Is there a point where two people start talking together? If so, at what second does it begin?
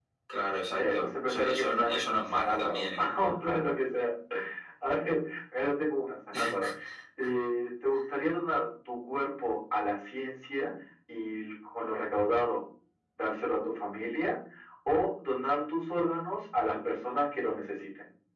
1 s

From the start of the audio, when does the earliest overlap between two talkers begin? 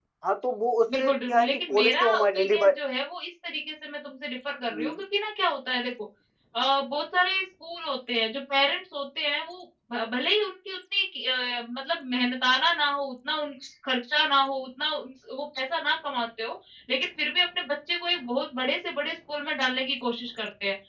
1 s

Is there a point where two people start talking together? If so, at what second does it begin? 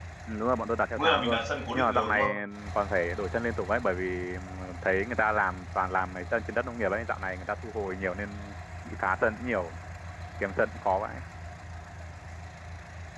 1 s

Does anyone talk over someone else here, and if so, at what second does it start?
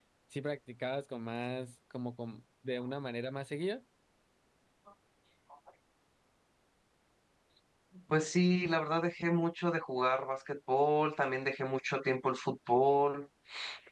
none

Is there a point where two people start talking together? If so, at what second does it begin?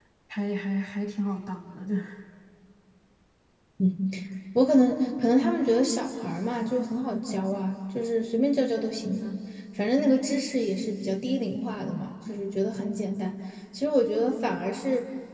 none

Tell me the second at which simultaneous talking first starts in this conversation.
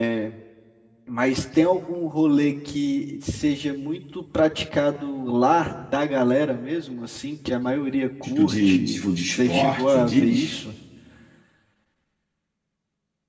8 s

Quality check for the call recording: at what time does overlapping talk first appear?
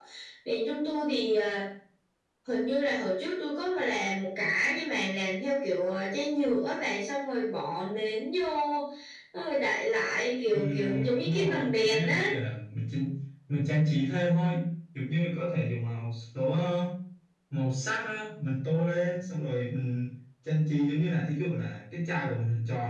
11 s

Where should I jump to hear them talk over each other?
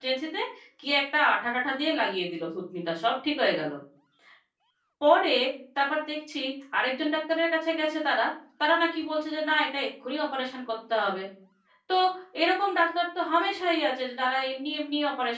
none

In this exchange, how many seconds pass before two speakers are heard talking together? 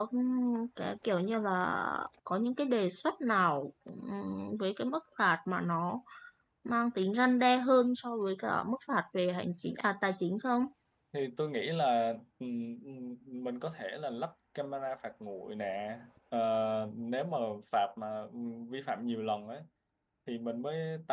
none

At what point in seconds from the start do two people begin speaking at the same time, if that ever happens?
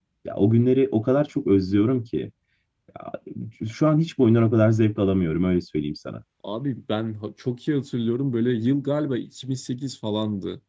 none

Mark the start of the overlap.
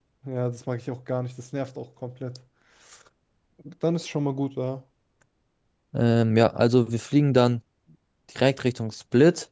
none

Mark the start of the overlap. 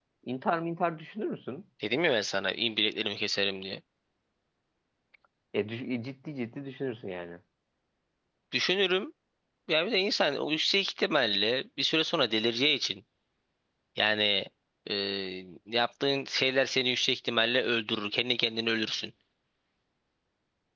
none

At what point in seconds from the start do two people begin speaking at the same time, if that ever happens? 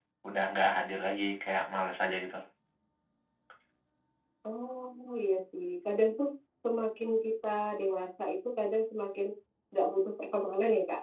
none

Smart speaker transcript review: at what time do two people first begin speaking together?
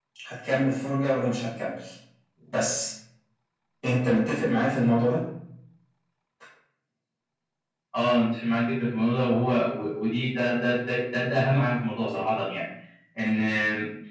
none

